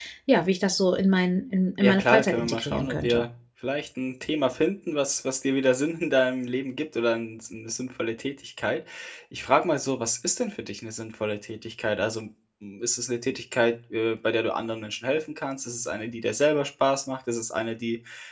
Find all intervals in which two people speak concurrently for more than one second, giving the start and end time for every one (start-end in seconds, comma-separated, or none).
1.8-3.2